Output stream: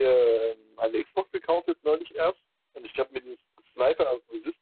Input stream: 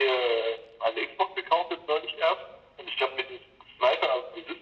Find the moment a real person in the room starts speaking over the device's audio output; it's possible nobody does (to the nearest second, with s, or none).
none